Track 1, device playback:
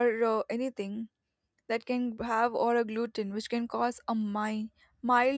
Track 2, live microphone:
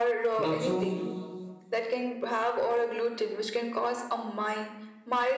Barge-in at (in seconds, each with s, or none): 0.4 s